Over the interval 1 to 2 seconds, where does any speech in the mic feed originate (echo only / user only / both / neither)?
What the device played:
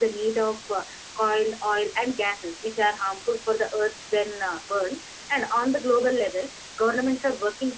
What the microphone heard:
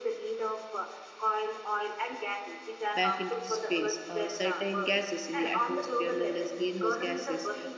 echo only